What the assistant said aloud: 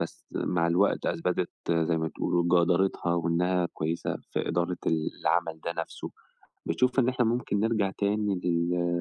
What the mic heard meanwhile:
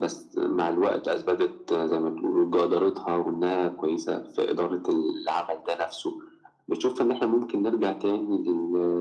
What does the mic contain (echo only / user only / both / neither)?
echo only